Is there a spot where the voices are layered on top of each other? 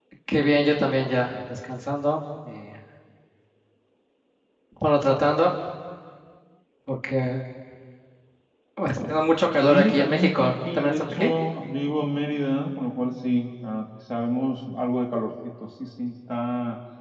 Yes, from 9.6 s

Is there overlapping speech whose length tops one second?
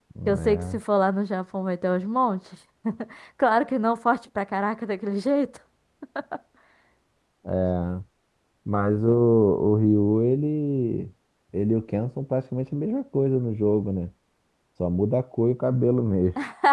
No

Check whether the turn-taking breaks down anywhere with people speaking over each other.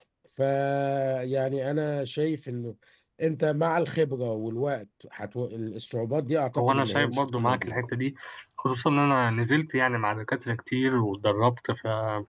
Yes, from 6.6 s

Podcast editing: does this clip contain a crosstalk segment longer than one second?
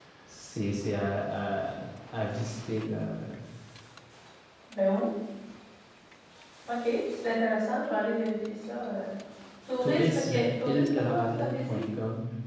Yes, from 9.8 s

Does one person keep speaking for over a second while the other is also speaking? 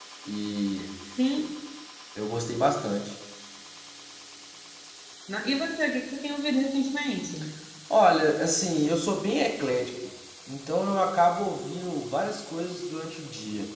No

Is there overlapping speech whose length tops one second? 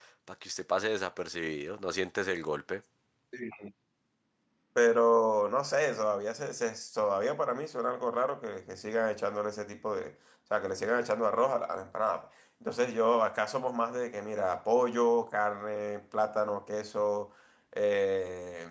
No

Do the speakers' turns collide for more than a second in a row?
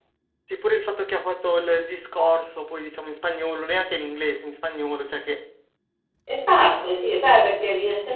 No

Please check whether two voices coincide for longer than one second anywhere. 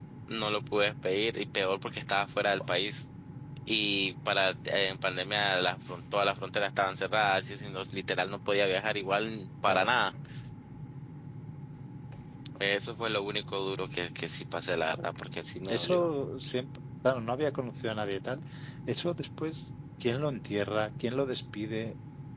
No

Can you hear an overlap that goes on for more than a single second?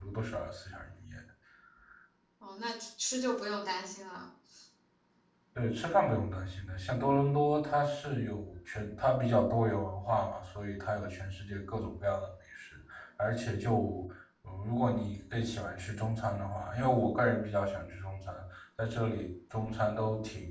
No

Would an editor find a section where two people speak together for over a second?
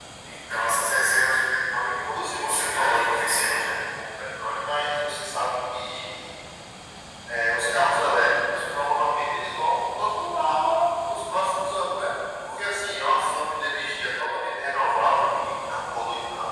Yes, from 2.1 s

